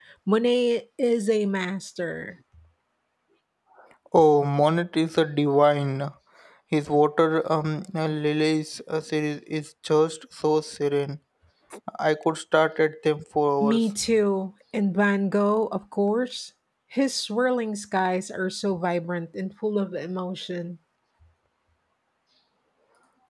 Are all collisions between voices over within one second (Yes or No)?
Yes